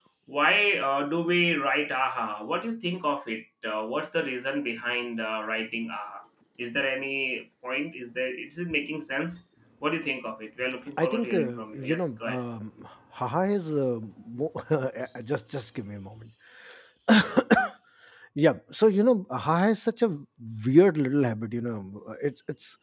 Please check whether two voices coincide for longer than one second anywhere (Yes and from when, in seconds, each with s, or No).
Yes, from 11.0 s